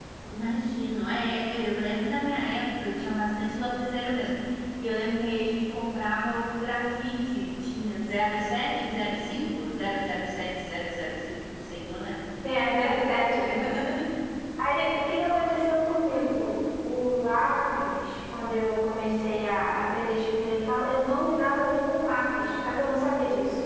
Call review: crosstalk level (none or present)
none